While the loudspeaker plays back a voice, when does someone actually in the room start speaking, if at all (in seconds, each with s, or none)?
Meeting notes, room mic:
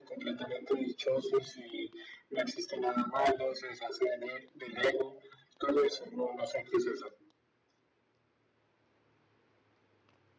none